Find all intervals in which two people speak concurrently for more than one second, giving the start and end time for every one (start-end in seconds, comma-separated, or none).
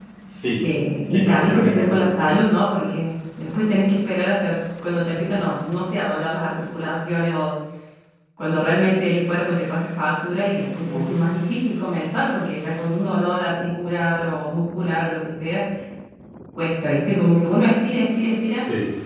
1.1-2.4